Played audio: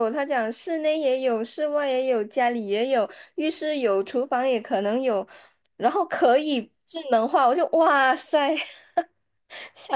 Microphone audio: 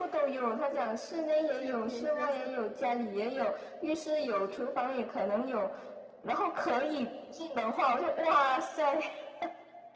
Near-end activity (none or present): present